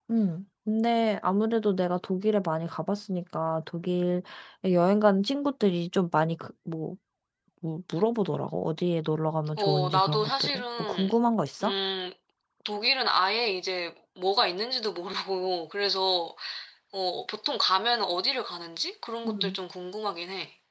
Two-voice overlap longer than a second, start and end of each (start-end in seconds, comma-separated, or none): 9.6-11.1